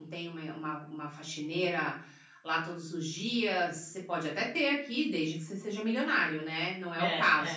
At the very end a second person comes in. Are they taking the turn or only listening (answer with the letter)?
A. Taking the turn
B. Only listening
A